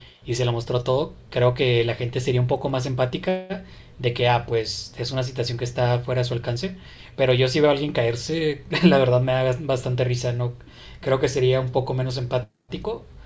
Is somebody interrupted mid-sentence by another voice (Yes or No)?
No